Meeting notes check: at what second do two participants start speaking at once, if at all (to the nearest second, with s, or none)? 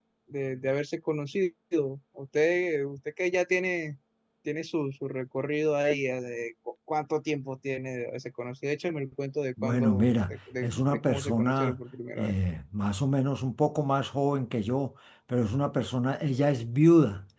10 s